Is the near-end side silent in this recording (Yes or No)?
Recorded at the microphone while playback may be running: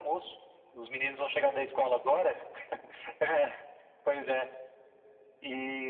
Yes